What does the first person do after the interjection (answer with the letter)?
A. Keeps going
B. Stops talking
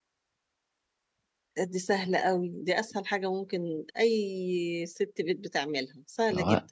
B